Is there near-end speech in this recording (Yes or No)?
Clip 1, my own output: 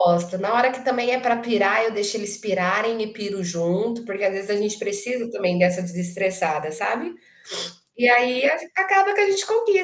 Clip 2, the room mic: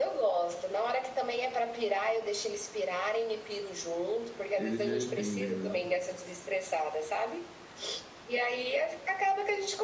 Yes